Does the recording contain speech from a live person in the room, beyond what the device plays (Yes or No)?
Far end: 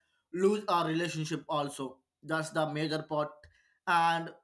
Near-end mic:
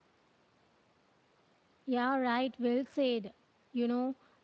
Yes